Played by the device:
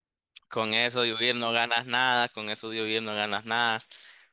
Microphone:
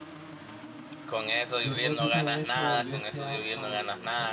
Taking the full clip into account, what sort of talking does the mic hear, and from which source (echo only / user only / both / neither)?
both